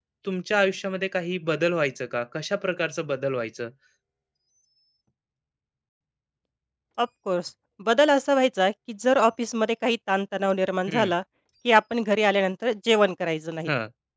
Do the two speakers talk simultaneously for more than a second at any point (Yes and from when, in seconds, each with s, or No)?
No